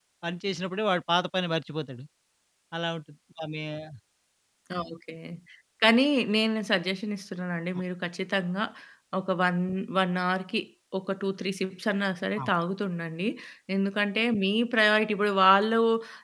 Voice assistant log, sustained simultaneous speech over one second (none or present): none